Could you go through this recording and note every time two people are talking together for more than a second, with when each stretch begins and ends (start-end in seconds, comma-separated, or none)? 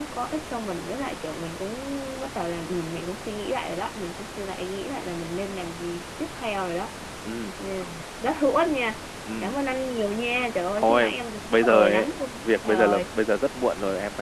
11.7-13.0